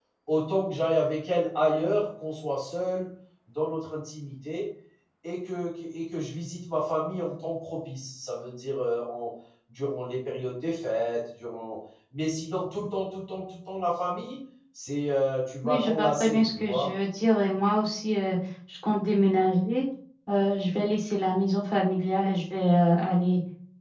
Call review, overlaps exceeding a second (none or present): present